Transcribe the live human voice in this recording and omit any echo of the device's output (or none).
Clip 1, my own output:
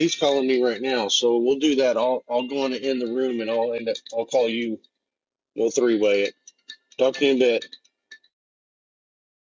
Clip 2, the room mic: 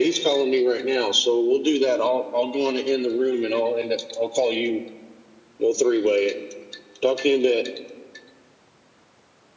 none